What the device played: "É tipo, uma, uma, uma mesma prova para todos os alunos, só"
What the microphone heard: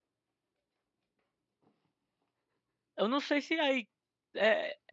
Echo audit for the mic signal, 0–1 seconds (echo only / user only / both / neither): neither